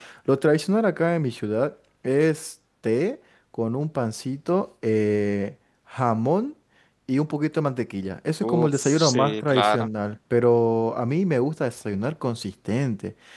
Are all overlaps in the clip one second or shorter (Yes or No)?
No